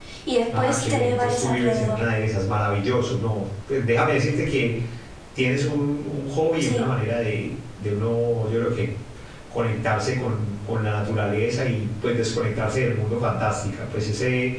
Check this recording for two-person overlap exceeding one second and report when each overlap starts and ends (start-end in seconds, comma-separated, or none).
0.6-2.0